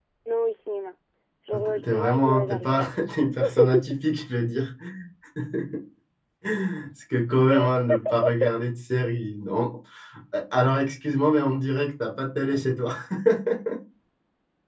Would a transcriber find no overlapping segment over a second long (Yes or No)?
No